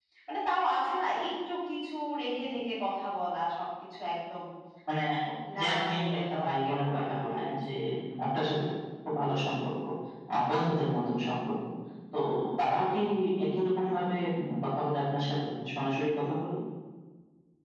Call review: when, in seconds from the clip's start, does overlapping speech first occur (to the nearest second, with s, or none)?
6 s